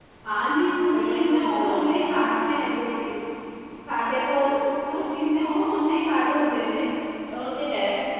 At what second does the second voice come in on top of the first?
0.9 s

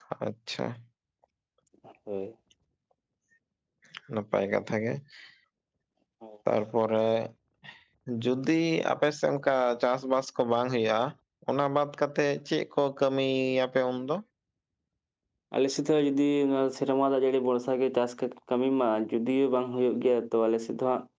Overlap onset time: none

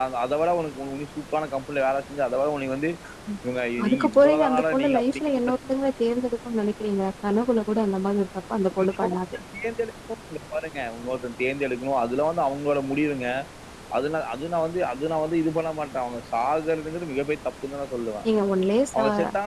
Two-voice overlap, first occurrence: 3.8 s

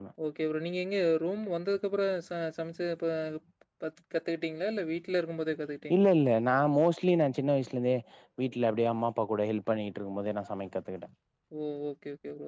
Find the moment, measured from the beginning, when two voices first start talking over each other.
none

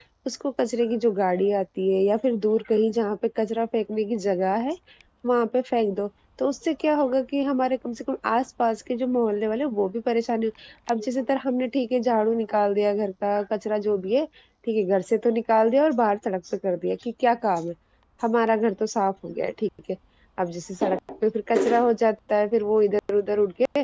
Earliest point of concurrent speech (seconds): none

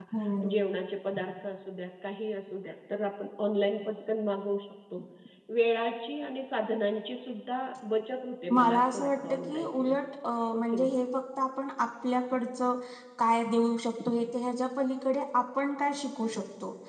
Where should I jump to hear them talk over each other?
8.5 s

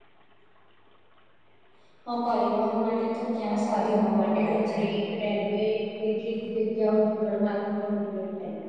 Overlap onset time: 3.4 s

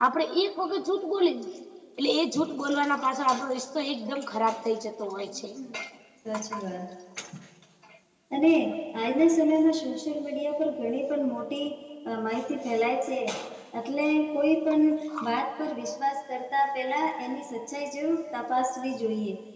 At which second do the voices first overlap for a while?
none

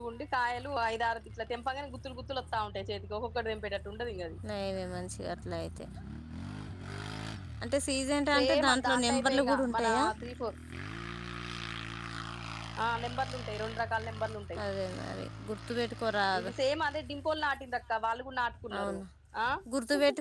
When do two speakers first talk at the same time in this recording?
8.3 s

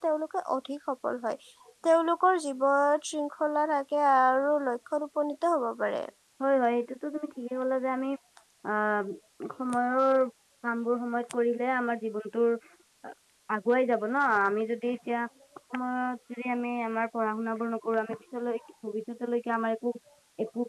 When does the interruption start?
none

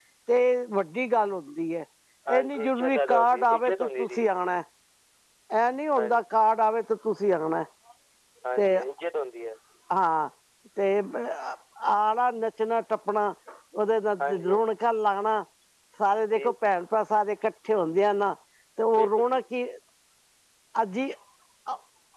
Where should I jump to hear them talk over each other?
2.4 s

